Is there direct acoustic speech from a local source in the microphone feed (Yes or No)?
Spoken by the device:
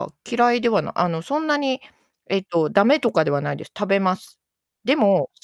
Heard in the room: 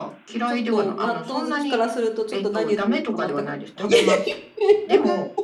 Yes